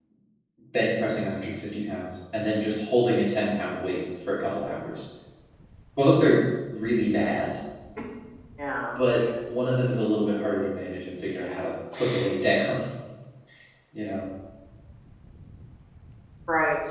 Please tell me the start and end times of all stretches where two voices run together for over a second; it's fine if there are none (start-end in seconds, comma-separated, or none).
none